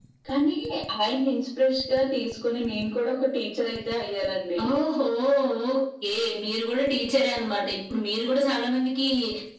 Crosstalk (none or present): none